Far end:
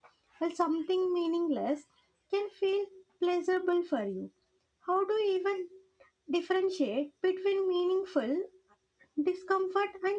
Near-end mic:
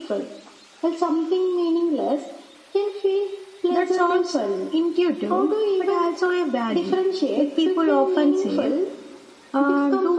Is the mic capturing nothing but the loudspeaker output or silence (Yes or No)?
No